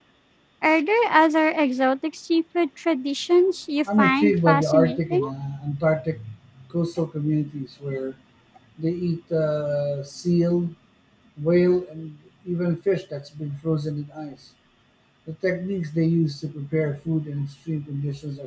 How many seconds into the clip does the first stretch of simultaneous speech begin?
4 s

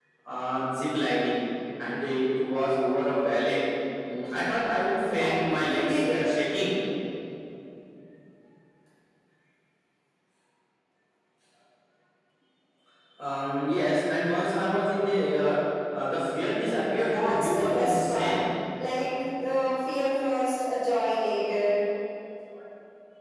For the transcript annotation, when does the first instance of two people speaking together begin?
5 s

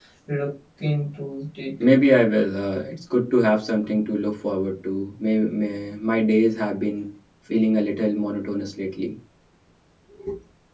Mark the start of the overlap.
none

